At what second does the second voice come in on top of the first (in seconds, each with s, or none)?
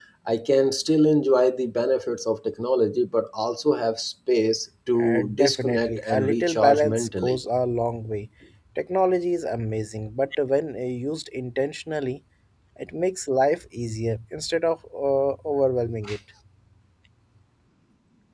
5.0 s